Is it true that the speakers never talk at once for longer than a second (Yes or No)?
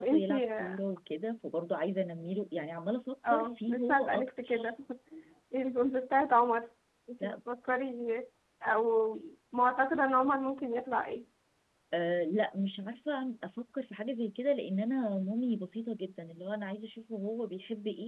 No